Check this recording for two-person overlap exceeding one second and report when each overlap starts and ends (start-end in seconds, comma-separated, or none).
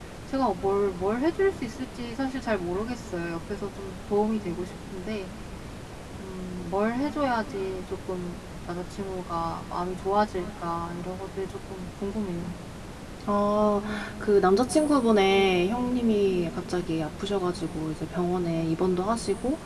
none